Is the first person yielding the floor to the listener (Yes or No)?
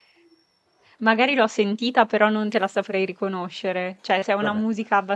No